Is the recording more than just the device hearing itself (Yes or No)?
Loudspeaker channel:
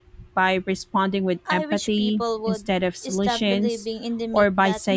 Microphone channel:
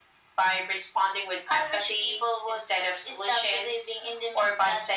No